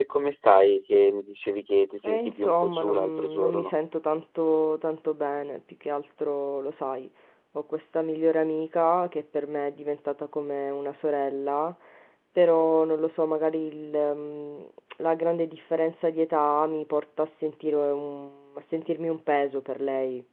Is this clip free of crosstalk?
No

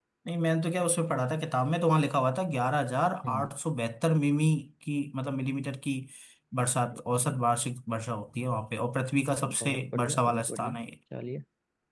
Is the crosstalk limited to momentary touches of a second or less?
No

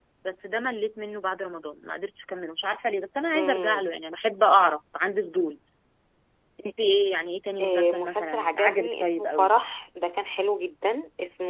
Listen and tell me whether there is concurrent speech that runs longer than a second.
Yes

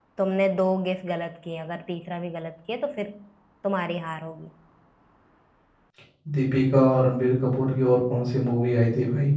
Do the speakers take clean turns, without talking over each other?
Yes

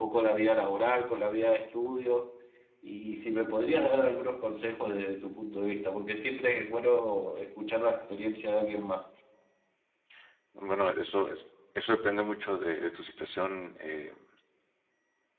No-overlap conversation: Yes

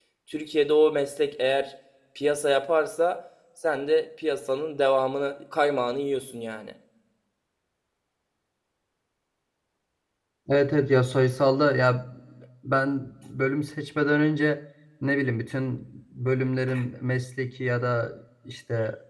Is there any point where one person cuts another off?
No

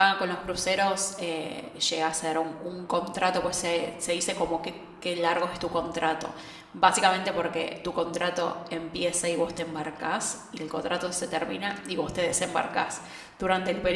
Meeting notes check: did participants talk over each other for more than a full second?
No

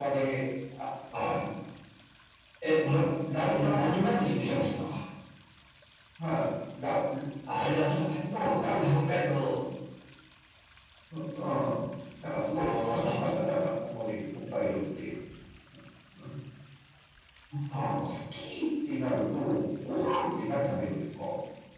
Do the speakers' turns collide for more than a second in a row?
Yes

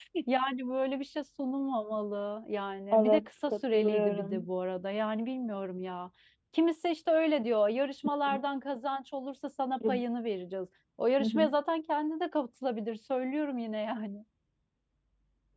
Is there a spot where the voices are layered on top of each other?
Yes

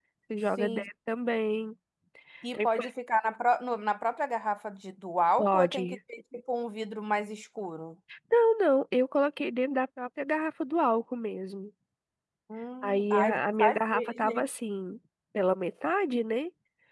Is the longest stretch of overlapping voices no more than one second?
No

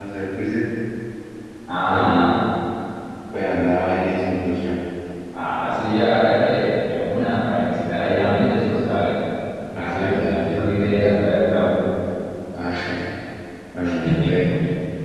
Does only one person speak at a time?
No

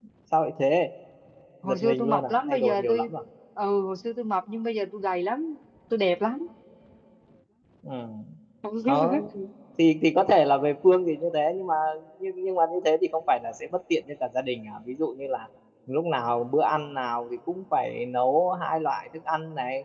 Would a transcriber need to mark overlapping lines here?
Yes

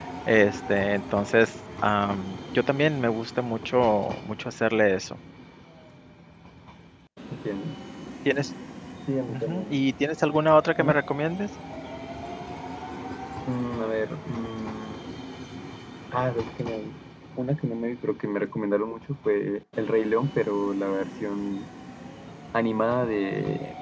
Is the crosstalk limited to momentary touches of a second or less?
Yes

